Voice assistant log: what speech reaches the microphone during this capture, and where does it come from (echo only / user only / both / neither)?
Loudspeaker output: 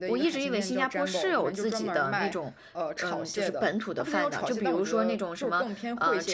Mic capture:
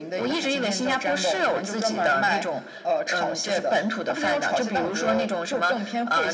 echo only